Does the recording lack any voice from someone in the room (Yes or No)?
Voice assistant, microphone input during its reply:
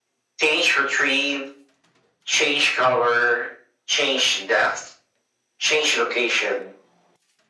Yes